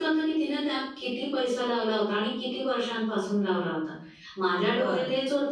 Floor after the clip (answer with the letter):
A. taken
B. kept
B